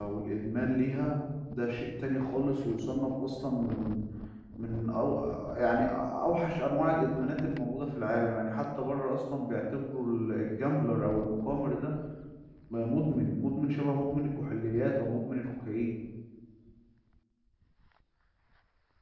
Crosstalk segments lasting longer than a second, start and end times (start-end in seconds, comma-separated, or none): none